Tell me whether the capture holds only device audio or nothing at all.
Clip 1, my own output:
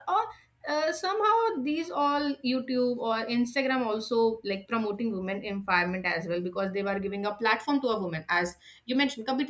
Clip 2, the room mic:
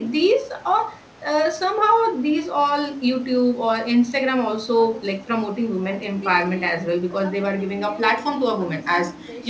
No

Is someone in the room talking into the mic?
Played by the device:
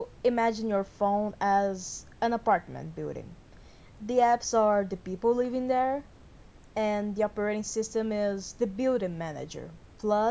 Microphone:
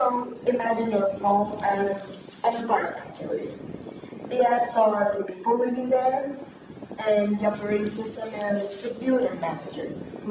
No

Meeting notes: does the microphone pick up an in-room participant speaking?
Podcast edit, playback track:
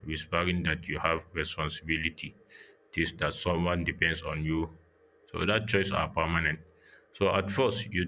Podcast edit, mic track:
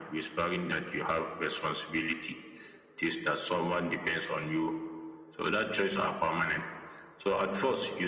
No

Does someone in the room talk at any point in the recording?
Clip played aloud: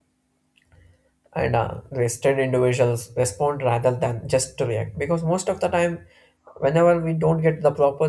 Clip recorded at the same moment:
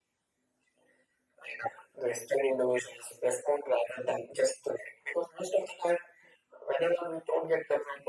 No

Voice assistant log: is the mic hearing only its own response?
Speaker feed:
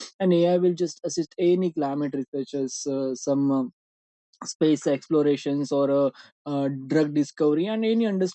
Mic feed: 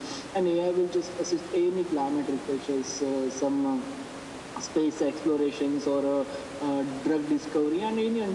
Yes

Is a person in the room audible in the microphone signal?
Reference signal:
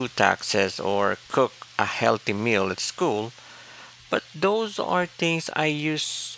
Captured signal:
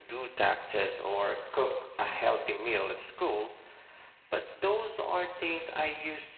No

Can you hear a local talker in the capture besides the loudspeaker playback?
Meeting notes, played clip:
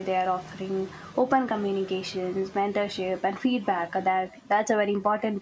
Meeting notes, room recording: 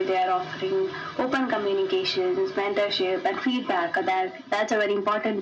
No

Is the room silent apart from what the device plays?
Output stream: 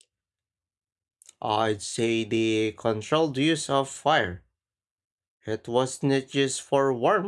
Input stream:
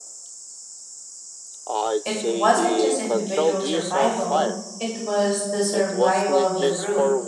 No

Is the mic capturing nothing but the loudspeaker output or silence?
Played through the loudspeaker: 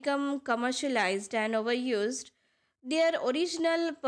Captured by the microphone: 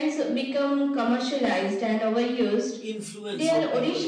No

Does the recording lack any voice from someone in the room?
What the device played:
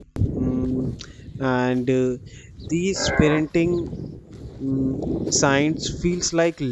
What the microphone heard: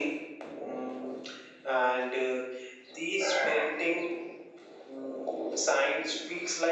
Yes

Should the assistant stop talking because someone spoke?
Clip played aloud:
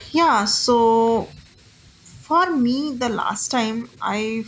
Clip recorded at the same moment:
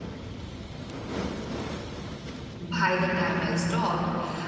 Yes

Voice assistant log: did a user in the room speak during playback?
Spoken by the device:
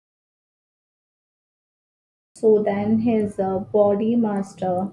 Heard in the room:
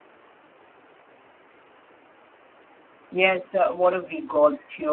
Yes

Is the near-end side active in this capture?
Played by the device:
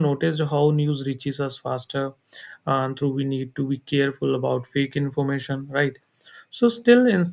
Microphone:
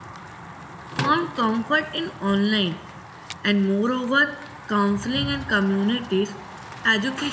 Yes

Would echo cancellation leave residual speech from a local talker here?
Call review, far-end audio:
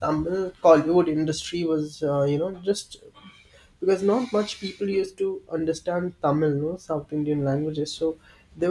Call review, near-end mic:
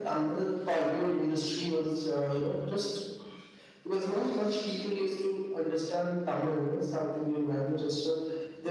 No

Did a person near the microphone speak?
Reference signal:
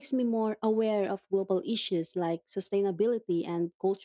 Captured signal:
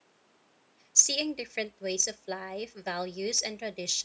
Yes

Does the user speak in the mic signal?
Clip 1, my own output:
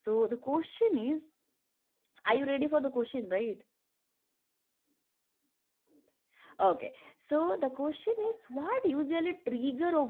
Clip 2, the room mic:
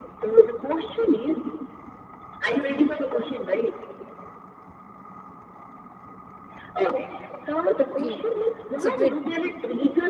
Yes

